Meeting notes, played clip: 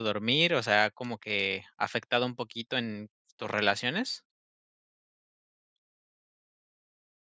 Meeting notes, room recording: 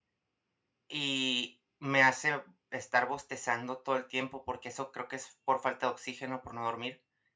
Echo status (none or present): none